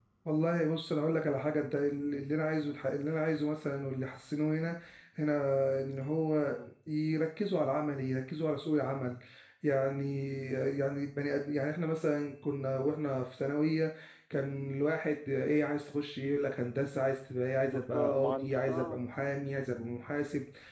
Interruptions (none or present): present